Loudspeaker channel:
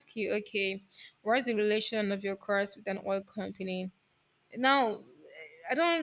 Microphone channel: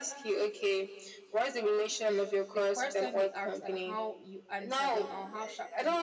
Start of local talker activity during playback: 2.5 s

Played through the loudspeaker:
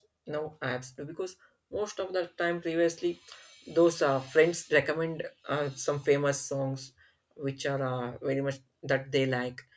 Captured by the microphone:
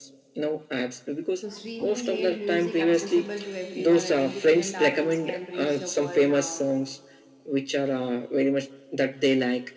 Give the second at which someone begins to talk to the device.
1.4 s

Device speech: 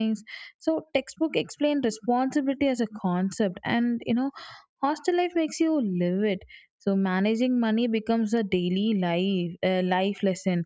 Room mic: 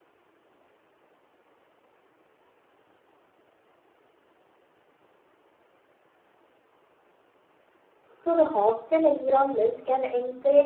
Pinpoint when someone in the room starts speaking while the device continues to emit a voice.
8.1 s

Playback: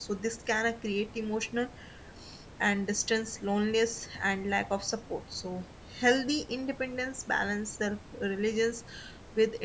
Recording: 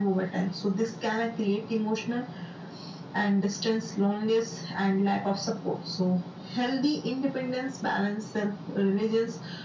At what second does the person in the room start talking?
none

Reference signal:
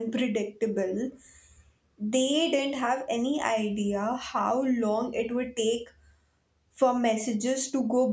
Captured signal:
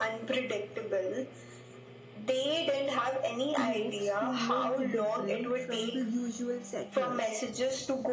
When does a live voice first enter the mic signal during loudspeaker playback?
3.5 s

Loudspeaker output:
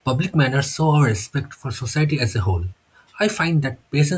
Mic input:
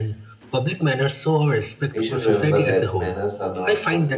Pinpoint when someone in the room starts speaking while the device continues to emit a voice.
1.9 s

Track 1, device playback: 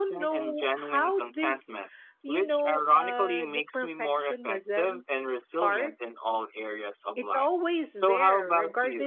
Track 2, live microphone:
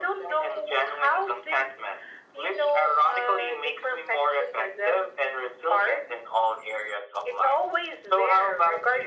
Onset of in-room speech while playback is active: none

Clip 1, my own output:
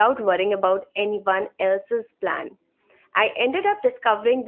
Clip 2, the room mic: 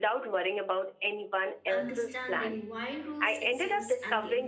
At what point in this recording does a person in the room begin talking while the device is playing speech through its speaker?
1.7 s

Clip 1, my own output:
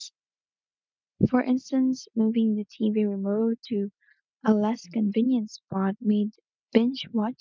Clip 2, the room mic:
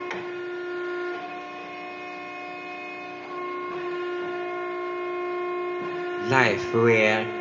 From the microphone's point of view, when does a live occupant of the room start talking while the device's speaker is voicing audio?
6.2 s

